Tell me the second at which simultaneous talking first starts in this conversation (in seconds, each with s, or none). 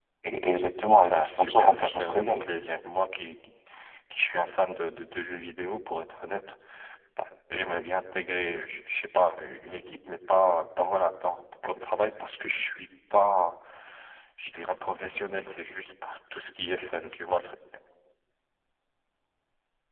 1.1 s